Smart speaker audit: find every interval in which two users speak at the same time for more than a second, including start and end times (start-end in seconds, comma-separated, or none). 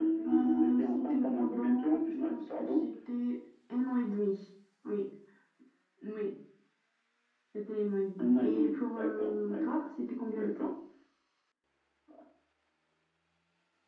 0.5-2.8, 8.2-9.8